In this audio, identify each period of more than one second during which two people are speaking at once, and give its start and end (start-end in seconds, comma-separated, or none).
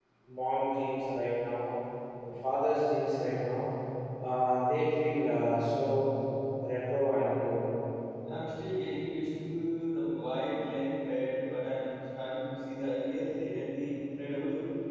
none